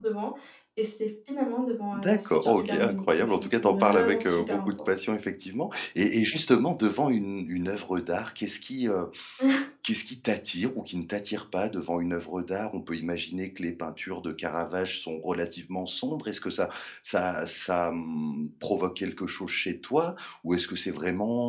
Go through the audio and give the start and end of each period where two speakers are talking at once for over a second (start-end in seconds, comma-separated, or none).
1.9-4.7